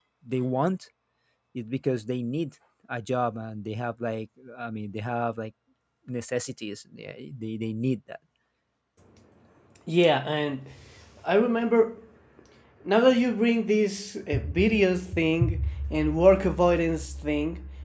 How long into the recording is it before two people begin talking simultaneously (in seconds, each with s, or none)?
none